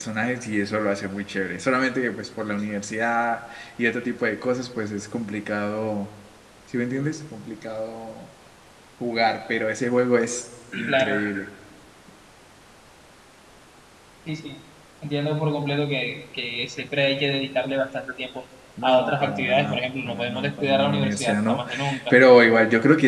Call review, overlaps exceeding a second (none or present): present